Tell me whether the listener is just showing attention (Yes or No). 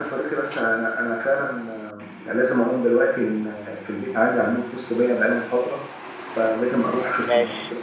Yes